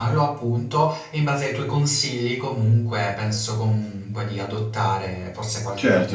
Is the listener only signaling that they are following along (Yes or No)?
No